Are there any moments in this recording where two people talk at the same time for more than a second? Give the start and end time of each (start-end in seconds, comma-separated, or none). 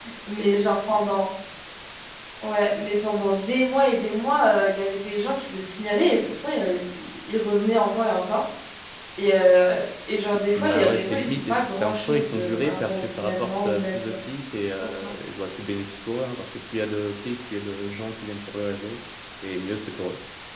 10.6-14.2